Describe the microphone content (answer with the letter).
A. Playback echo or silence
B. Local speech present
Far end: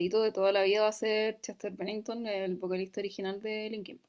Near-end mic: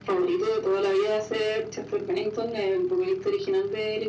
A